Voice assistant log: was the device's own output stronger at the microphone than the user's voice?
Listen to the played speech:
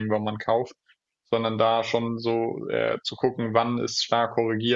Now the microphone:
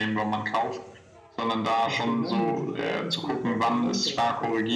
Yes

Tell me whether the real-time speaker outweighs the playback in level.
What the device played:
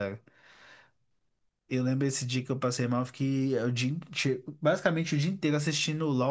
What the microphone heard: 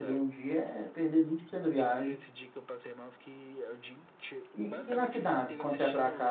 Yes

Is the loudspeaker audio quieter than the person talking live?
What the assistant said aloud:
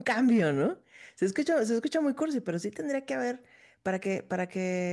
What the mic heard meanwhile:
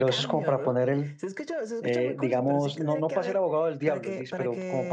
Yes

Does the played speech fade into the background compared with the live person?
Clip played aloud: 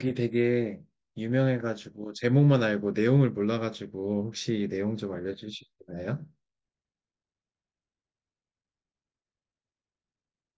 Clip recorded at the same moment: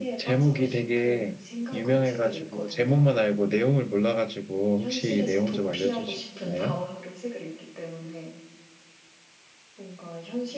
No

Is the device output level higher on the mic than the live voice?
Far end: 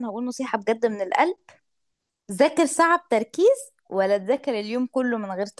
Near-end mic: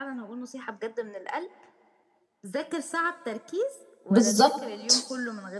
No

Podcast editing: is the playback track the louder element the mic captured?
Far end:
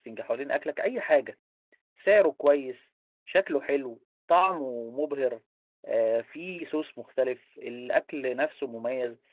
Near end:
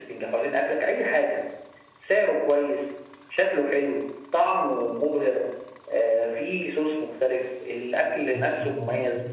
Yes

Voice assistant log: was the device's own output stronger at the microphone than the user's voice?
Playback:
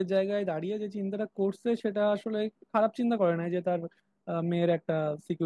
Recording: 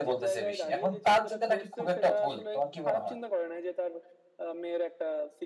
No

